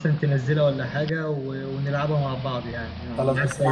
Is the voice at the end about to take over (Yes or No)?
Yes